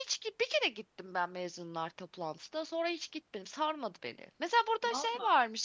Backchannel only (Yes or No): Yes